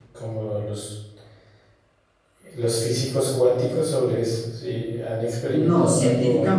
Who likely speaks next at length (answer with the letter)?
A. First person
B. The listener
B